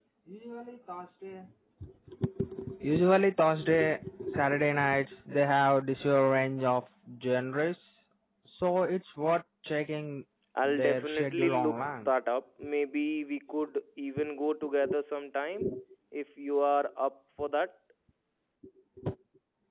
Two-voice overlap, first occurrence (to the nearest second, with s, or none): 11 s